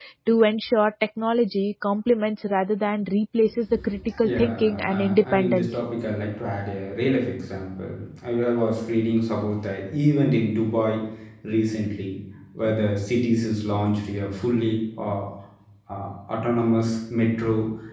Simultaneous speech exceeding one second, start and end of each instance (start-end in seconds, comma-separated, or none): 4.2-5.8